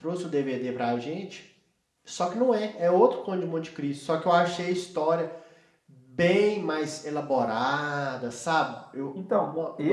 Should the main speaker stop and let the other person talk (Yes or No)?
Yes